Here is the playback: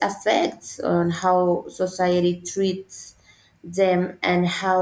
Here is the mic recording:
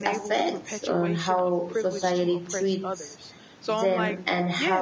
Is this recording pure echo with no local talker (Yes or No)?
No